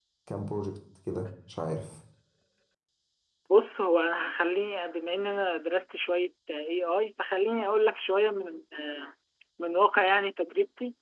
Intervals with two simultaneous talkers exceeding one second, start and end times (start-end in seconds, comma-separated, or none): none